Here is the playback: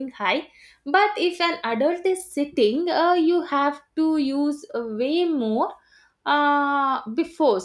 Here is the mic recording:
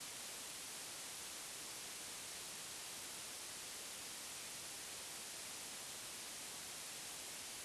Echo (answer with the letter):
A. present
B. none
B